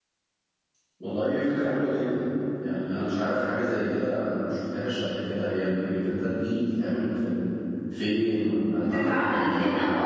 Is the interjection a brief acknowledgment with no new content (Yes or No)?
No